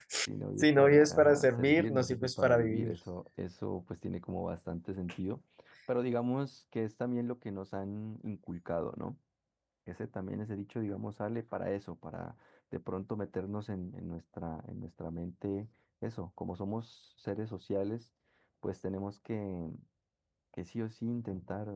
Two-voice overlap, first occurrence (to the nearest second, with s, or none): 1 s